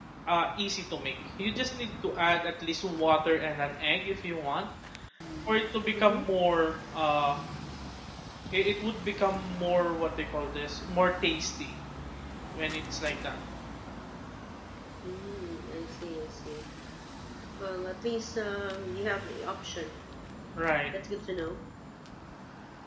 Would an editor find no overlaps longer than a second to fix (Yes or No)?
Yes